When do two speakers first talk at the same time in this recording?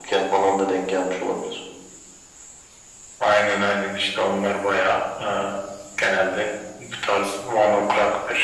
none

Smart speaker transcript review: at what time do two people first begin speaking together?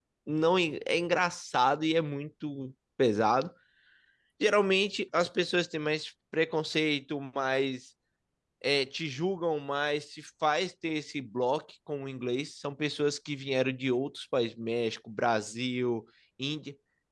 none

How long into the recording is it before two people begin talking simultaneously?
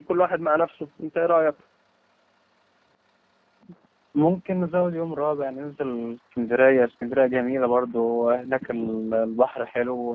none

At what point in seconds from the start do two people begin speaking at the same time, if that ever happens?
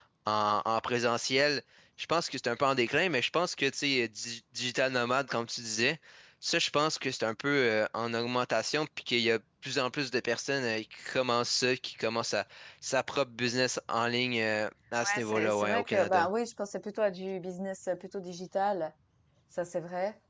15.0 s

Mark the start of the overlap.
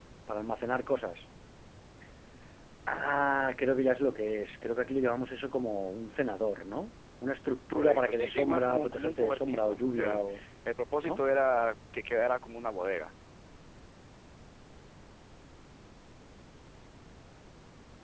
7.7 s

